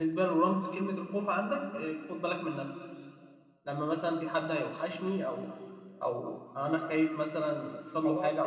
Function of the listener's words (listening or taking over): taking over